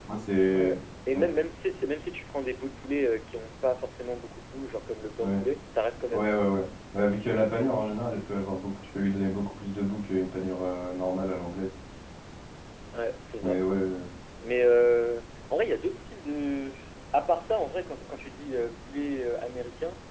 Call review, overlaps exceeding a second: none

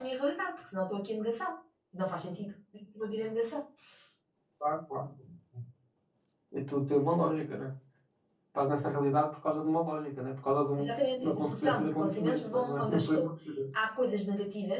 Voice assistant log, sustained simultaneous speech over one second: present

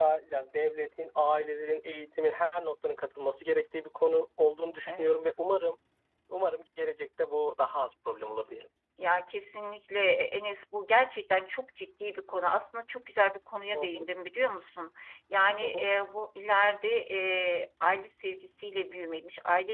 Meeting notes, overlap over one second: none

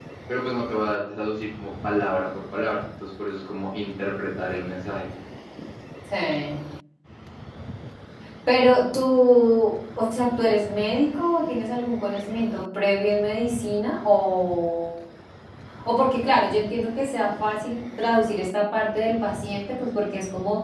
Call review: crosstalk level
none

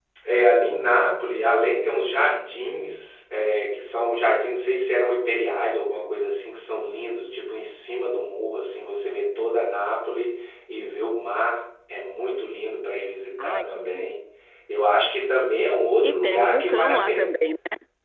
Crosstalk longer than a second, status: present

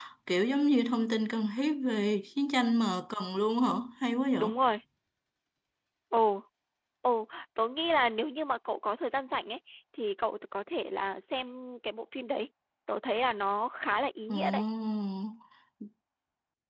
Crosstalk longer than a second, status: none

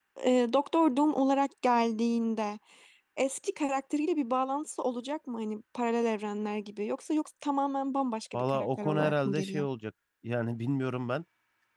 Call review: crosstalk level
present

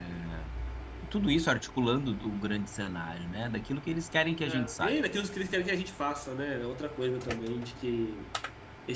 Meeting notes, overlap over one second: none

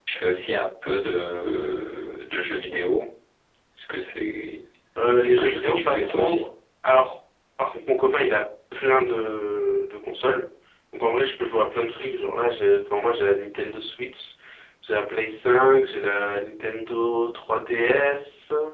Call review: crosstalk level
present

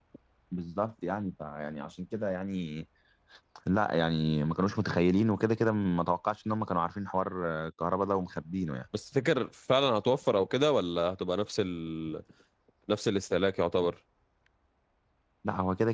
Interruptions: none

